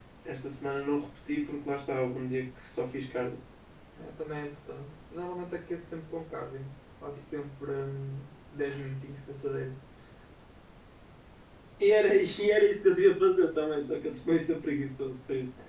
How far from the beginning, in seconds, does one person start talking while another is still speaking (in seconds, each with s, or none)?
none